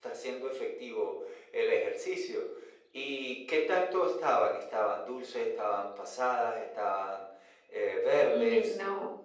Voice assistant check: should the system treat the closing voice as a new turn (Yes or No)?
Yes